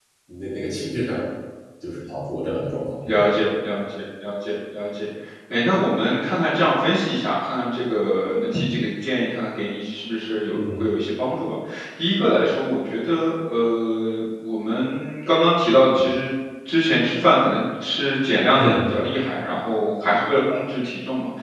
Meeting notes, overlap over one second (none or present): none